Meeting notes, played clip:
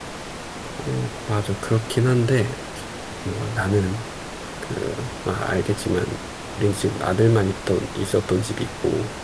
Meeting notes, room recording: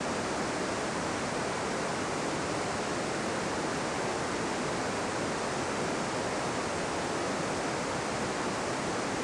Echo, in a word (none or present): none